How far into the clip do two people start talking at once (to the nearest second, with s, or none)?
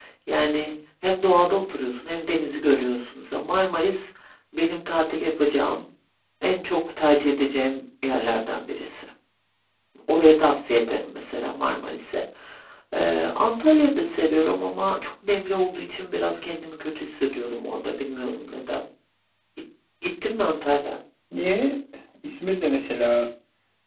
none